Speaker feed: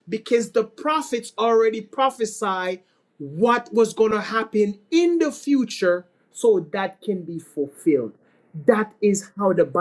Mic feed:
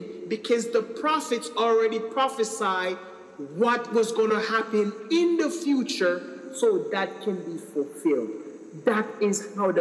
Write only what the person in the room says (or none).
none